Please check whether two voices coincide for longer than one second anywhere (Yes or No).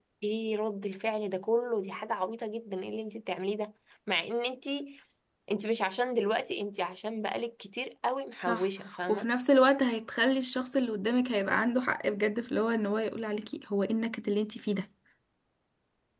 No